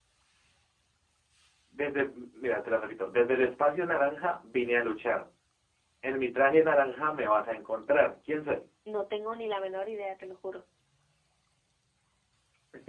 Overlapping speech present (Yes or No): No